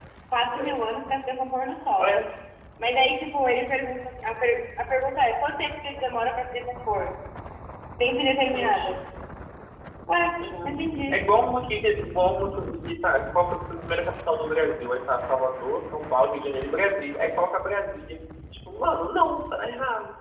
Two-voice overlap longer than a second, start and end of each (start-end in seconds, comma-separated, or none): none